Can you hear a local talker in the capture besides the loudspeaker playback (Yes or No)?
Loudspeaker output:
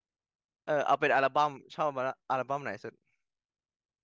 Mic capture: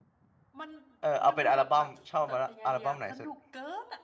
Yes